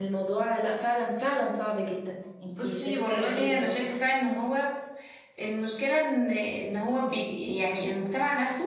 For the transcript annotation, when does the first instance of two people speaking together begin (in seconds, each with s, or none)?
2.5 s